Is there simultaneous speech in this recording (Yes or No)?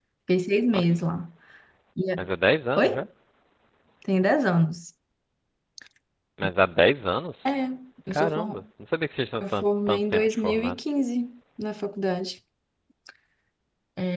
Yes